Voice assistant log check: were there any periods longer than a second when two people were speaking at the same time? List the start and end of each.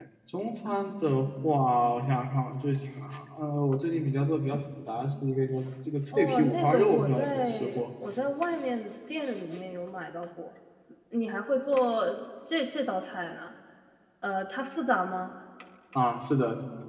6.1-7.8

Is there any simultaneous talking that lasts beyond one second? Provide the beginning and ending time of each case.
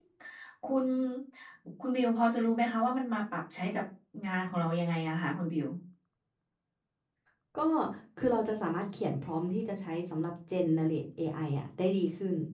none

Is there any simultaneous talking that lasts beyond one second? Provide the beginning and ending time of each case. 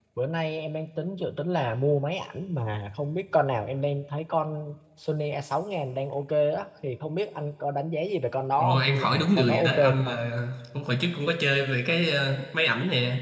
8.6-10.1

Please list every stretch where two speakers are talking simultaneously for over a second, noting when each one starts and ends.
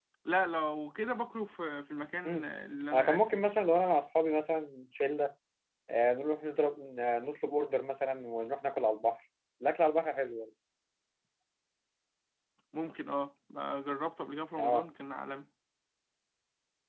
none

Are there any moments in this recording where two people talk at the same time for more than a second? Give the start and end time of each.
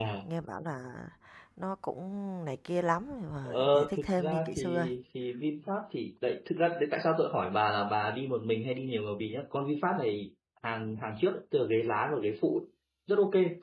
3.4-4.9

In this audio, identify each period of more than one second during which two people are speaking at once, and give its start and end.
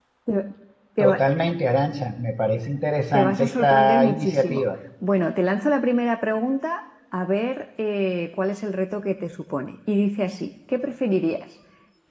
3.1-4.6

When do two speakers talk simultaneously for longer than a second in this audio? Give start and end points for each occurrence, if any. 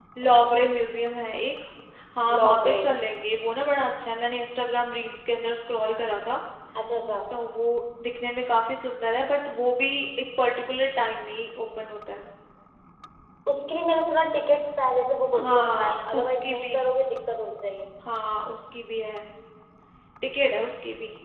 15.3-16.8

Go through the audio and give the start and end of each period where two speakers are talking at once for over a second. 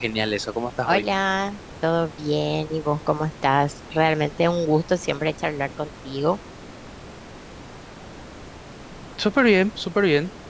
none

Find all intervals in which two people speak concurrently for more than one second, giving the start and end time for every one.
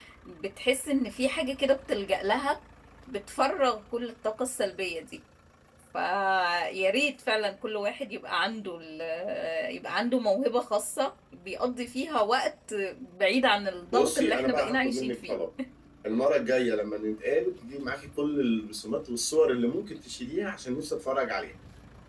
13.9-15.4

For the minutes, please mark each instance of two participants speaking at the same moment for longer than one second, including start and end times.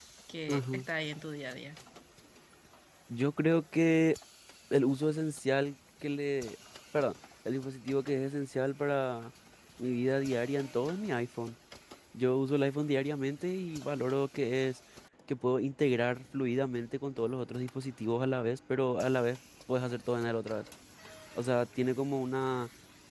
none

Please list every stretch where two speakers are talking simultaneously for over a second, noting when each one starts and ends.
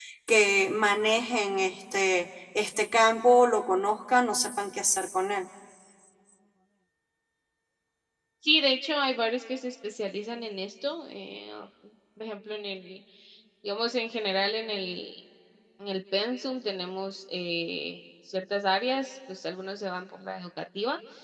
none

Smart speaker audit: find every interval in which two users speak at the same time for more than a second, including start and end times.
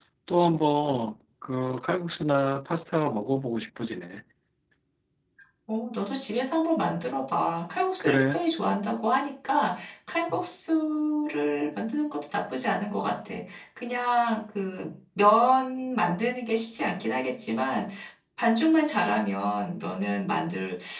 none

